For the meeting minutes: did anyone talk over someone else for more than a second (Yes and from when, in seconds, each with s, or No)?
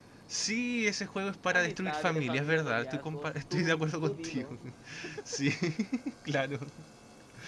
Yes, from 1.5 s